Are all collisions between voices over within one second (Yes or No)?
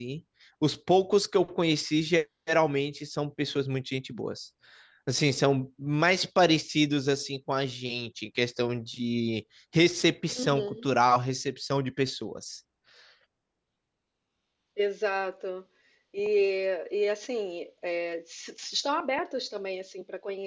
Yes